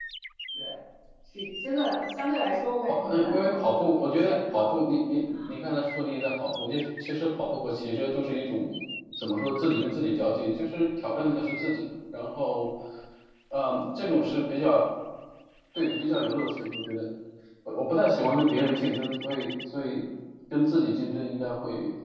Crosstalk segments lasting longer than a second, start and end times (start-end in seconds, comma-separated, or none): 2.8-4.6